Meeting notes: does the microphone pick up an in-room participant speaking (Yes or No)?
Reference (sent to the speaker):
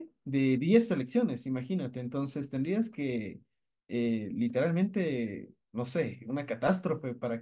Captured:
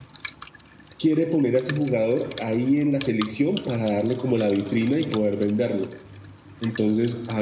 Yes